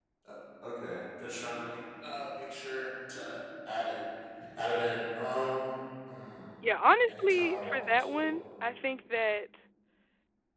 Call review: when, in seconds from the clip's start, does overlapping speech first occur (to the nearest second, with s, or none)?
7 s